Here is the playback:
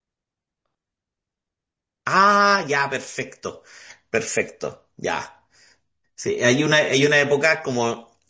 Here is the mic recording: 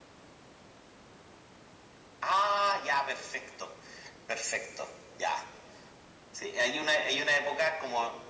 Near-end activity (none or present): none